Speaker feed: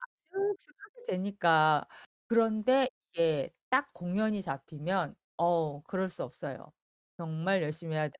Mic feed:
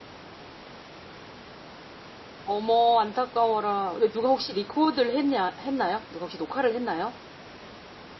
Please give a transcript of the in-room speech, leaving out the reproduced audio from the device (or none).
어머 안타까워라. 근데 누가 혹시 리코드를 했냐 했나요? 누가 혹시 녹화를 했나요?